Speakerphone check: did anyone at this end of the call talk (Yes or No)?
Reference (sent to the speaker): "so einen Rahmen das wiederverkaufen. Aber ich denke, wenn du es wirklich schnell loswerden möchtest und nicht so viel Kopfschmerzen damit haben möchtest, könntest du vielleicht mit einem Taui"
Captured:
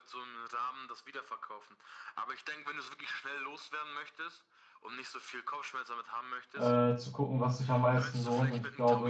Yes